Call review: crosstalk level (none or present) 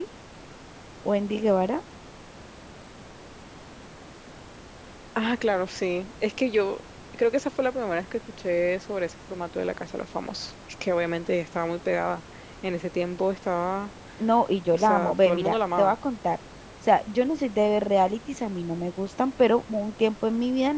present